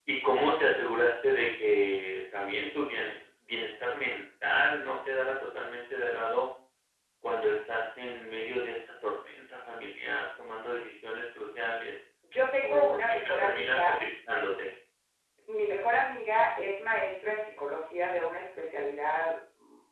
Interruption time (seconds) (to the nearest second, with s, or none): 13 s